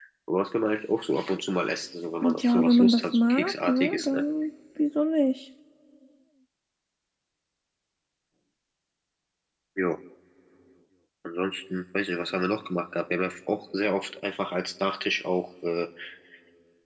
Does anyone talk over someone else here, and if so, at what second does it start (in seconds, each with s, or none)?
2.2 s